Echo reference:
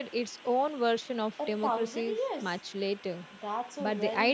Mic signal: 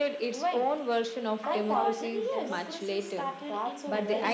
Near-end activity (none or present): present